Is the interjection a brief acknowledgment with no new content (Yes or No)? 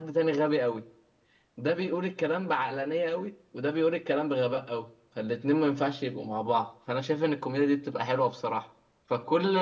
Yes